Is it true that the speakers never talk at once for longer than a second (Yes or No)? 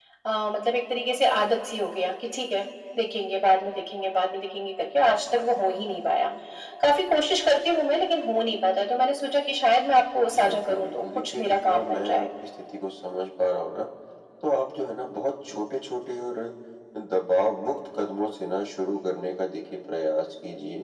No